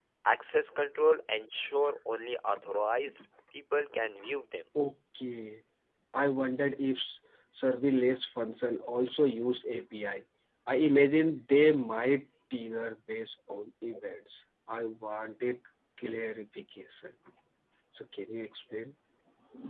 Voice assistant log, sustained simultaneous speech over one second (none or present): none